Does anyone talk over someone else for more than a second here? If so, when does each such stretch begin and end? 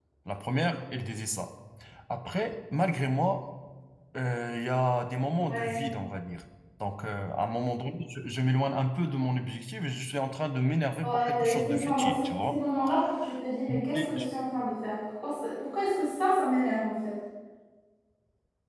11.0-12.6

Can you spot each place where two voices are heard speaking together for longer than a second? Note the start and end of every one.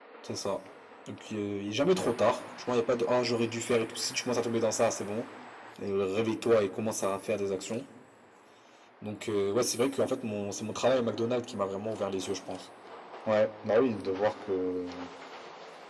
none

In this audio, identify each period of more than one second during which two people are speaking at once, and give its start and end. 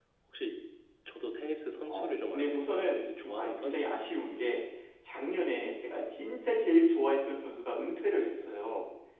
1.9-4.2

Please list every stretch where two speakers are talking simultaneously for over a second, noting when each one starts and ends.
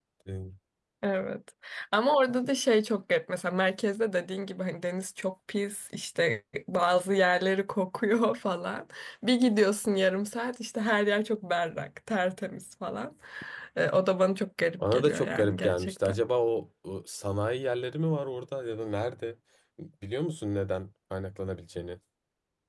14.9-16.1

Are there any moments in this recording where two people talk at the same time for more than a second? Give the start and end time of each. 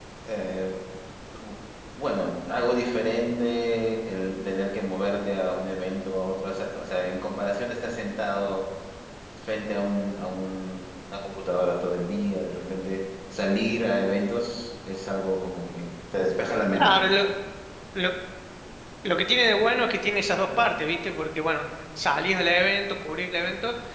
none

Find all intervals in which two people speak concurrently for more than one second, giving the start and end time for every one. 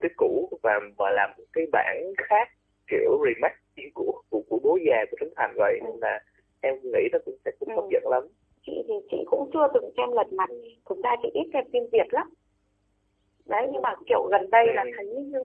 none

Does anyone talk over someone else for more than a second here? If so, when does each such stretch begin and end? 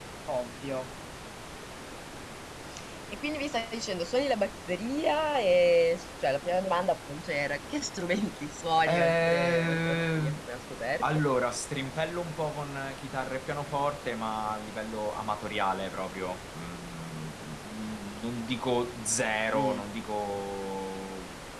8.9-10.3

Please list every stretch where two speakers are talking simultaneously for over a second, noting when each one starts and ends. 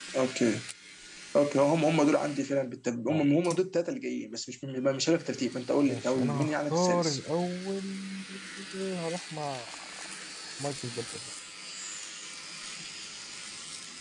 5.8-7.2

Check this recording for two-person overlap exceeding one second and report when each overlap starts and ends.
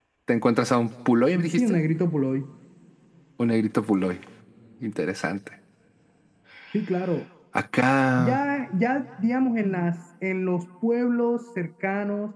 none

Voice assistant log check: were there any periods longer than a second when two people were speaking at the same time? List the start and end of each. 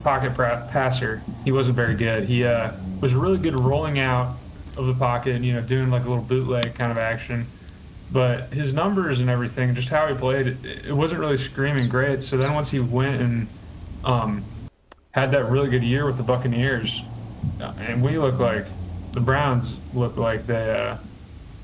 none

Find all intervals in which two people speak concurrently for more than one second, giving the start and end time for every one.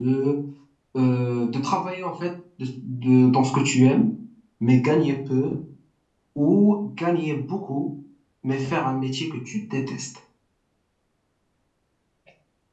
none

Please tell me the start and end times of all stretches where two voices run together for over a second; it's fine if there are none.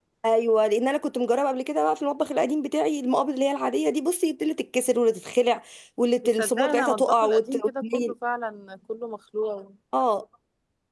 6.2-8.1

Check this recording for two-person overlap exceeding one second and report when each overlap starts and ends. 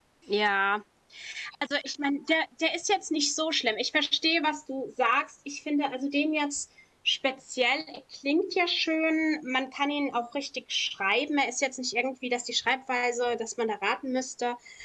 none

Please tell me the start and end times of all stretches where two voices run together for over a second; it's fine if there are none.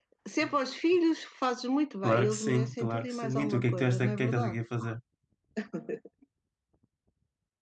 2.0-4.6

